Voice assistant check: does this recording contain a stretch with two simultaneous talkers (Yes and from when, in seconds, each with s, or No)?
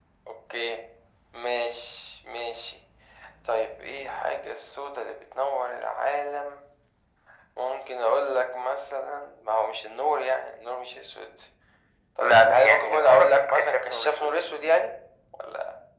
Yes, from 12.2 s